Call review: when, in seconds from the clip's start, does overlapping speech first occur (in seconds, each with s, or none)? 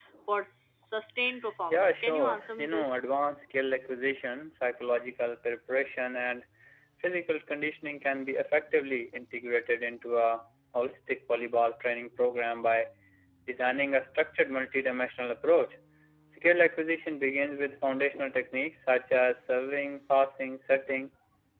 1.7 s